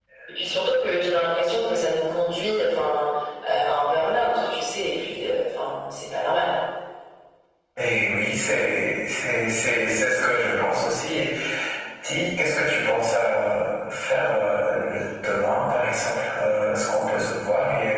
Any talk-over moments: No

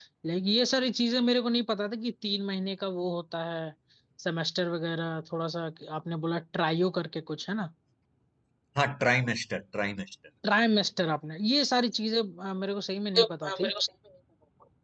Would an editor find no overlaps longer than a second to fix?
Yes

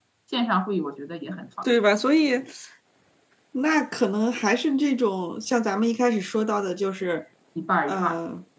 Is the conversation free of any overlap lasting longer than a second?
Yes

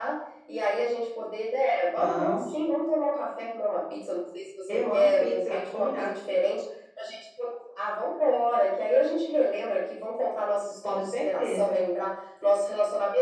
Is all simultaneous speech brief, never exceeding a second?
No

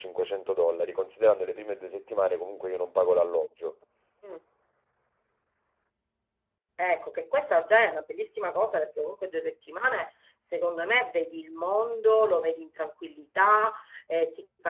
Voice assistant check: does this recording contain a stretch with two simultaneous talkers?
No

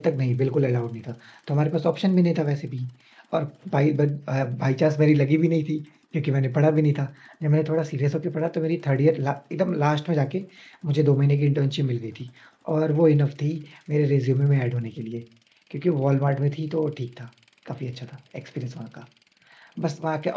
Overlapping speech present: No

